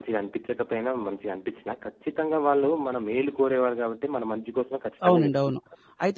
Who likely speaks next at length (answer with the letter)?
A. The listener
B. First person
A